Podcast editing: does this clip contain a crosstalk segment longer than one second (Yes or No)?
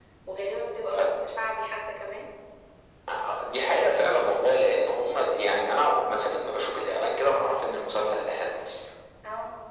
No